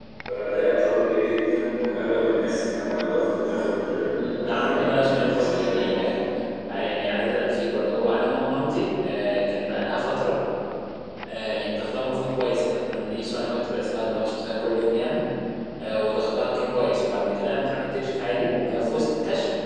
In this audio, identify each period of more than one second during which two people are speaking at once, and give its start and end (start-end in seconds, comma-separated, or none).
4.1-6.0